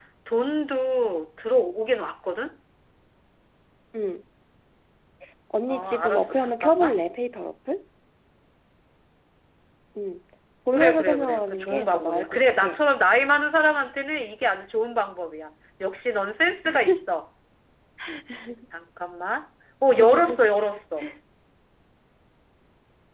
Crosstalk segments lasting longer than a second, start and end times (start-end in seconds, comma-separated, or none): 5.7-7.0, 10.7-12.7